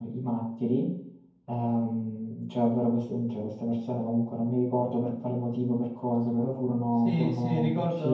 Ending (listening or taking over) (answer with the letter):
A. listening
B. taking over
B